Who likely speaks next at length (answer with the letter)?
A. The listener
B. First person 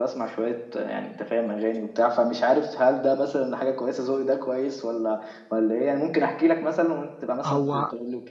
A